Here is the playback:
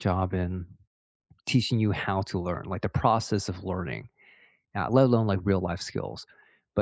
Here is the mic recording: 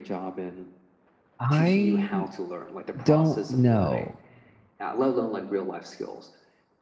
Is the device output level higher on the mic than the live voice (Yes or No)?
No